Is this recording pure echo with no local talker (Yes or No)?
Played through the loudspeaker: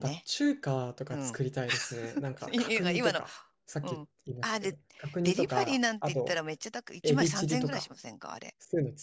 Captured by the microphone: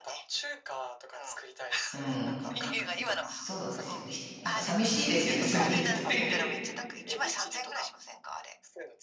No